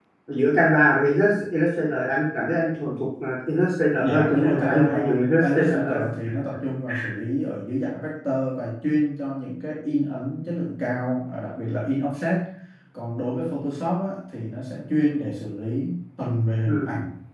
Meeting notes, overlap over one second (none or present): present